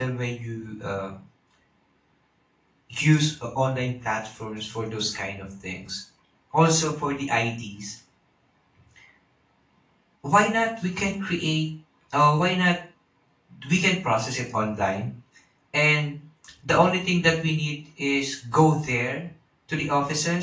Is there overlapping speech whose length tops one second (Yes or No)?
No